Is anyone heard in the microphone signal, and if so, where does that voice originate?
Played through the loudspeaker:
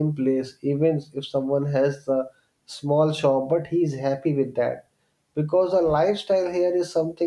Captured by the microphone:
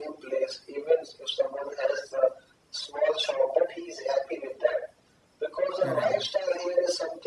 both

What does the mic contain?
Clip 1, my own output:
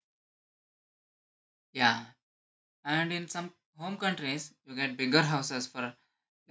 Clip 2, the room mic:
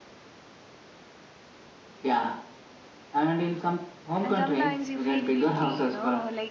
both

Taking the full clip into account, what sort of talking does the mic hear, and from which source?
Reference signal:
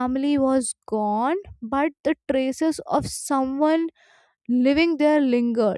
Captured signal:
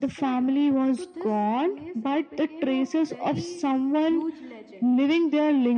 both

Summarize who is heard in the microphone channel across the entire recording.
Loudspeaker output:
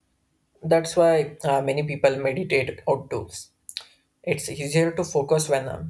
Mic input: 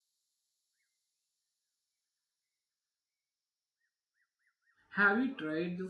user only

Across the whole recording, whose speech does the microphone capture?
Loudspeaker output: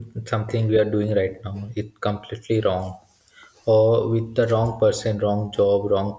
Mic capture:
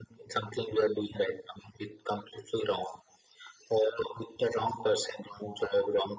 echo only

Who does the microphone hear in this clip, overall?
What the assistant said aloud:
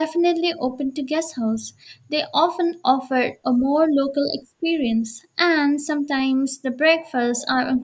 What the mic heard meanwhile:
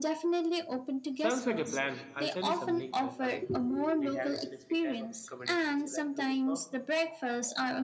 both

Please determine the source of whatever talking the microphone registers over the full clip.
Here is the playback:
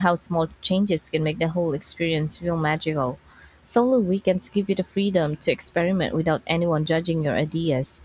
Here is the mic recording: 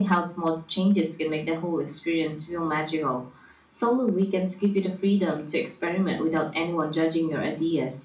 echo only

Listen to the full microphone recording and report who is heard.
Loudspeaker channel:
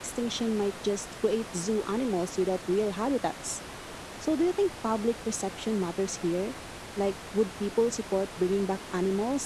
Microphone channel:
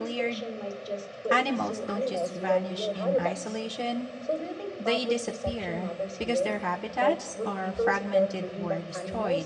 both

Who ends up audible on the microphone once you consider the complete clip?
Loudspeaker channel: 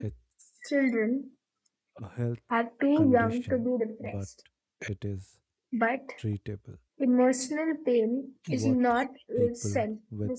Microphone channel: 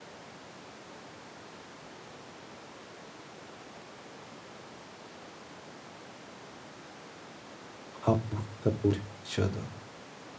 user only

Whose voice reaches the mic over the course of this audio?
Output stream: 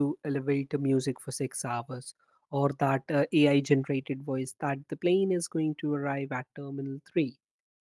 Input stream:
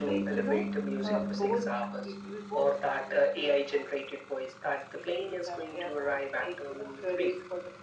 both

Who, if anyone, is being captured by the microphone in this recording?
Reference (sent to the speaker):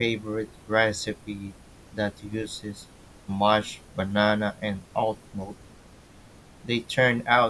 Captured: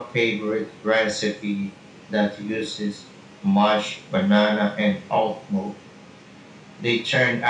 echo only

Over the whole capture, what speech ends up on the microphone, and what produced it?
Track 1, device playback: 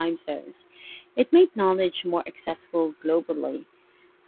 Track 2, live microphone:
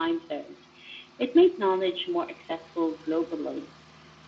echo only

